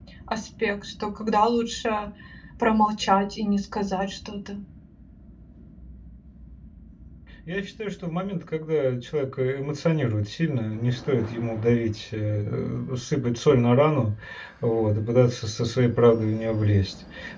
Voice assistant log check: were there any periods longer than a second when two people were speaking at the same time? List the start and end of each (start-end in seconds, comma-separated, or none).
none